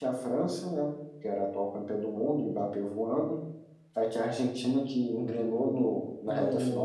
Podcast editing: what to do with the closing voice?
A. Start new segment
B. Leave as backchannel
A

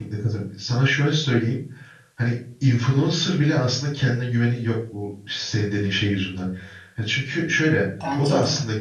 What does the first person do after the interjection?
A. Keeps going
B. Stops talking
A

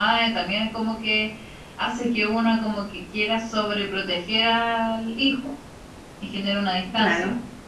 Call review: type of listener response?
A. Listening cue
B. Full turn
A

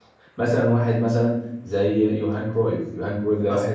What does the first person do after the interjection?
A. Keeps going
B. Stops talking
A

